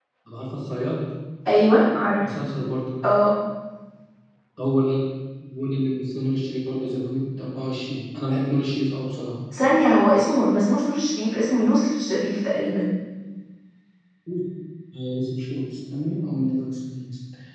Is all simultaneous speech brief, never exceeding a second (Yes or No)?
Yes